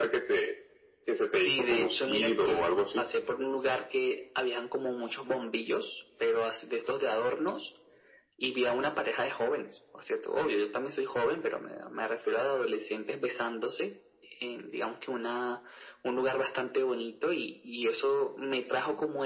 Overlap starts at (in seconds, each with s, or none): 1.4 s